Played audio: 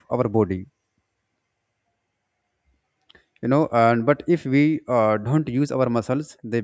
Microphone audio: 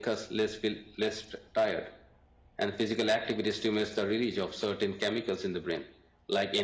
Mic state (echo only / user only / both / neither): user only